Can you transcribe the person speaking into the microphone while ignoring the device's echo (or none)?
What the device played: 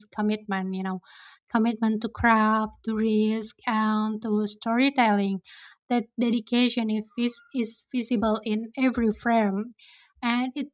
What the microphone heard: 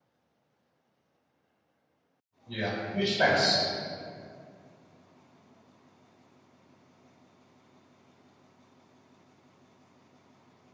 Yeah, huge fans.